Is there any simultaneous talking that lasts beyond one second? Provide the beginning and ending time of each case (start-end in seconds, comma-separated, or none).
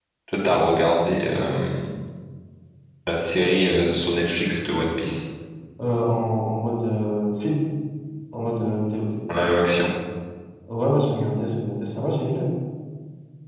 none